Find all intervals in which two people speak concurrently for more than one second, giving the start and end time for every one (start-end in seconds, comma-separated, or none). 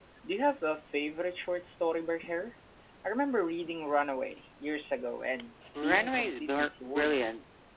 5.8-7.2